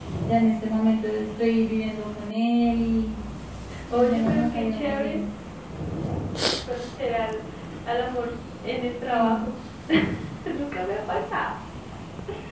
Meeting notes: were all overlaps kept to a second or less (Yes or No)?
No